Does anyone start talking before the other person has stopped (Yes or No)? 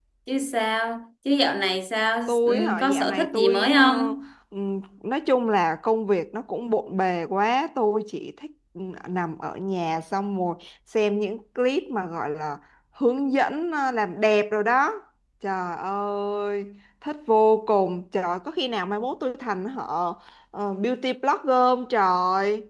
Yes